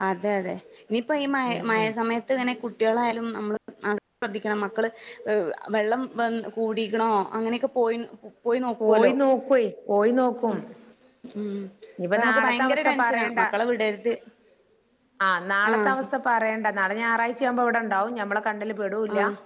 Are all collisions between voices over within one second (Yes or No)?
No